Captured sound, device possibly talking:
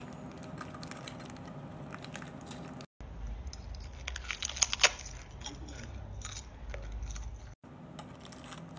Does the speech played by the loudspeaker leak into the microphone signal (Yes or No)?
No